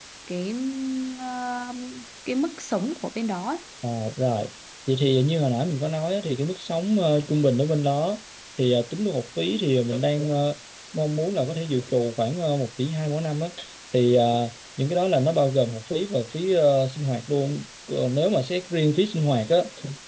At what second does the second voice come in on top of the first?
none

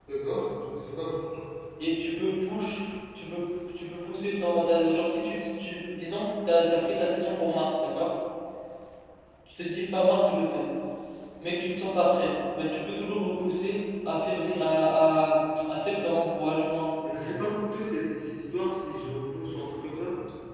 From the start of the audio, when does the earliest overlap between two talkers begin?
none

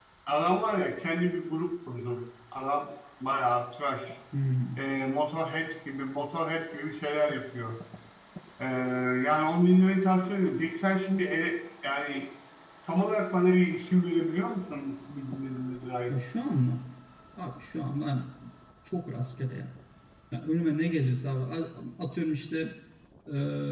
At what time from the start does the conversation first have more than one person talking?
none

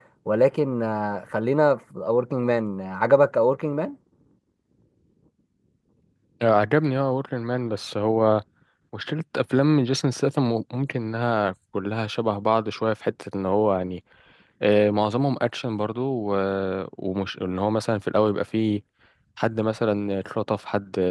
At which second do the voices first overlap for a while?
none

